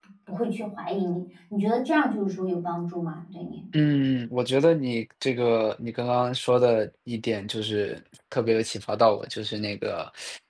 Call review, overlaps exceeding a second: none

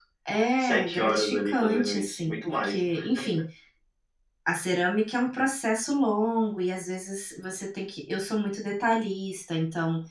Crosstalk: present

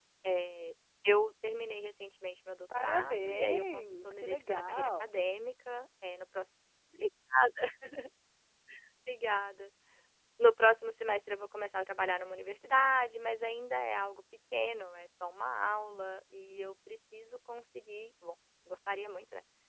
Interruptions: present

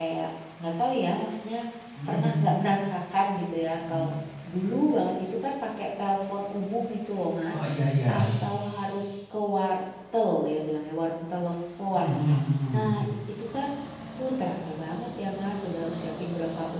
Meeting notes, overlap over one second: none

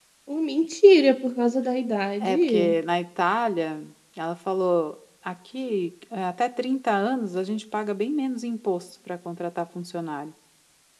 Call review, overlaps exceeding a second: none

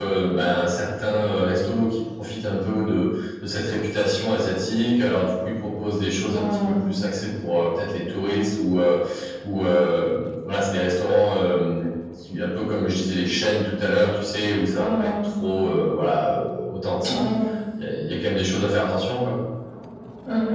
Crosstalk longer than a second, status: none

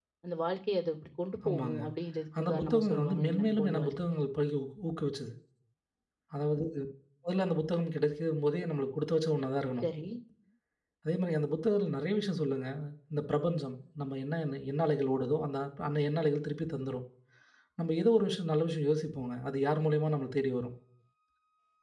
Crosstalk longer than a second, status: present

